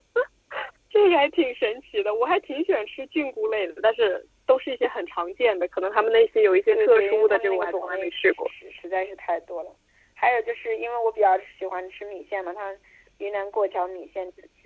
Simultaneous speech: Yes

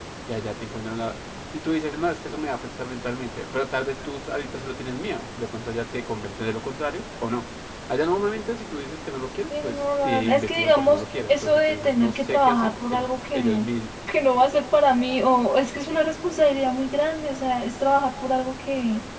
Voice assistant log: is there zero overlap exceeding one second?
No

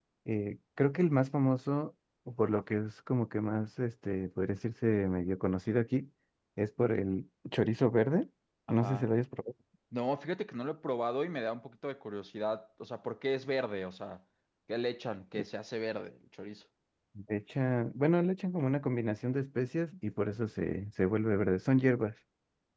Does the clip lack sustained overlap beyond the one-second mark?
Yes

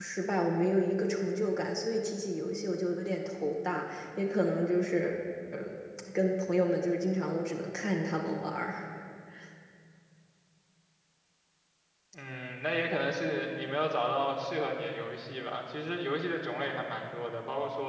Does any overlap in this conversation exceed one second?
No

